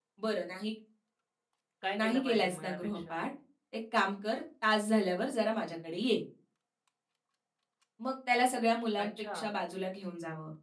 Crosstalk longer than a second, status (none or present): present